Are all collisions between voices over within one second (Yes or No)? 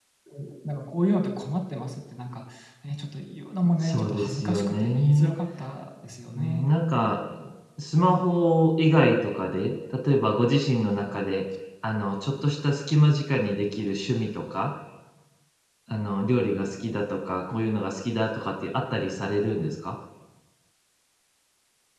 No